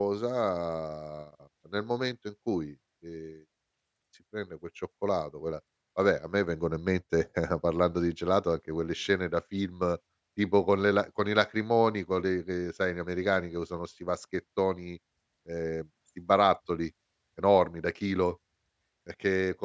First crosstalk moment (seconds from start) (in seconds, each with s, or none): none